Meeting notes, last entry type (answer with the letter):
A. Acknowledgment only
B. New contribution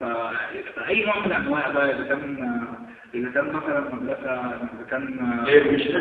B